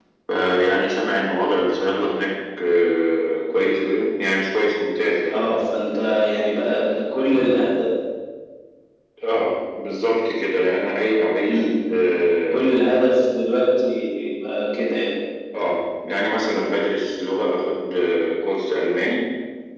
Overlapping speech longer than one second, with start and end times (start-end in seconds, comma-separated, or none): none